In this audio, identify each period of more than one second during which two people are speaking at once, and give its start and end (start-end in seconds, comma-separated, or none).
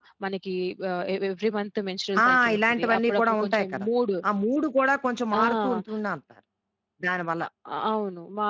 2.2-3.9